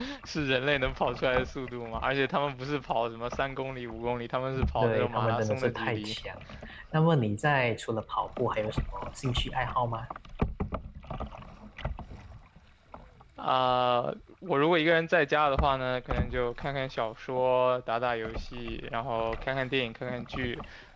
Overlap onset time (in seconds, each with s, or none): 4.5 s